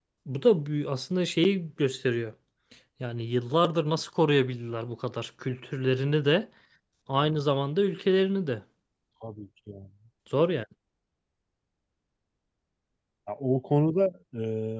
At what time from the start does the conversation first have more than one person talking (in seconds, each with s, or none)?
none